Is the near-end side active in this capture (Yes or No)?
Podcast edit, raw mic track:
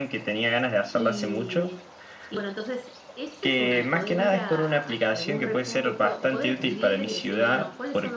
Yes